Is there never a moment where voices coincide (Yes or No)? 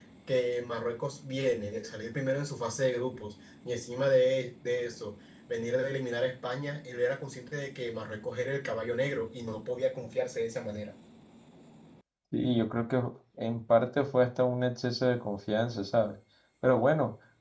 Yes